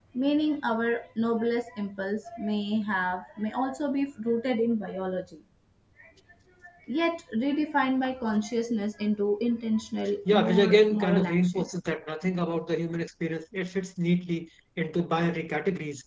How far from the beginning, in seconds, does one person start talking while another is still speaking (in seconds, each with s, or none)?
10.2 s